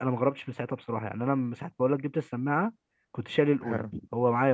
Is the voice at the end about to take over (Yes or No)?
No